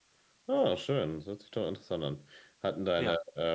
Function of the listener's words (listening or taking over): listening